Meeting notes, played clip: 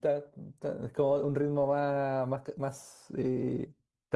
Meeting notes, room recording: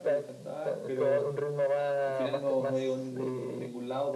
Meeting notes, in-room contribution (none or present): present